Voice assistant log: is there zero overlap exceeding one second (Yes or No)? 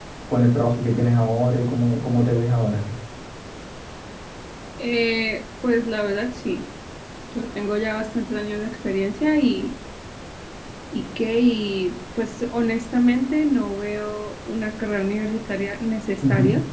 Yes